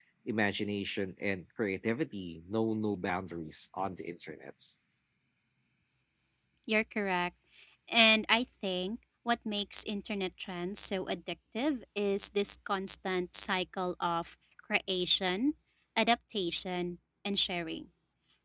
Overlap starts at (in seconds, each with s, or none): none